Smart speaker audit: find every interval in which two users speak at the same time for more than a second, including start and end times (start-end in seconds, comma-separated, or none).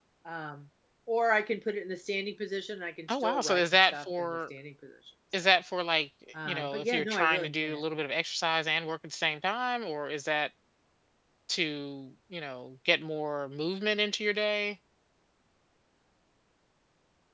3.1-4.4, 6.5-7.8